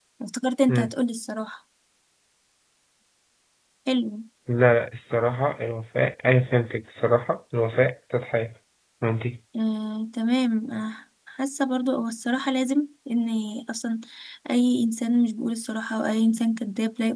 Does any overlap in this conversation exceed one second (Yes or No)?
No